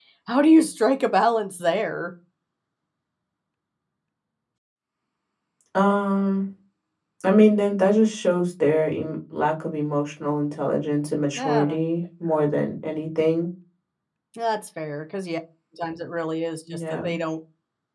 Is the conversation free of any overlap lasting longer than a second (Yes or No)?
Yes